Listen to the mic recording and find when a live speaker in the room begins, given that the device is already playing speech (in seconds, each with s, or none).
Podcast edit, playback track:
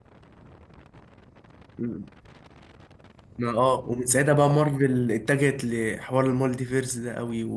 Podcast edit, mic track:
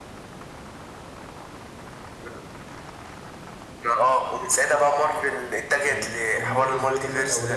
5.8 s